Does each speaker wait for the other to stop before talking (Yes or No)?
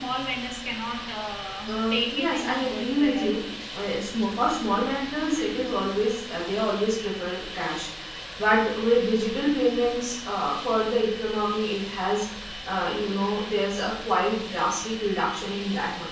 No